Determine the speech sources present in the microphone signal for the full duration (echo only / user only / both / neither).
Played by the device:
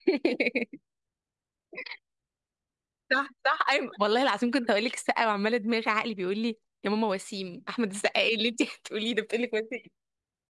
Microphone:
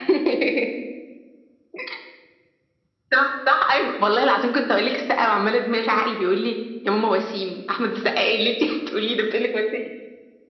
echo only